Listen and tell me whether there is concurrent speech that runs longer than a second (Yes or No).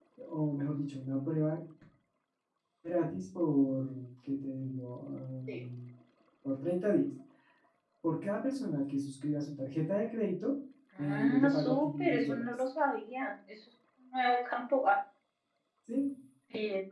Yes